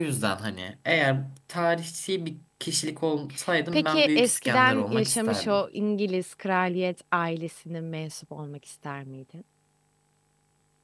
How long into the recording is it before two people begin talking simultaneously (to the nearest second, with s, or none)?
4 s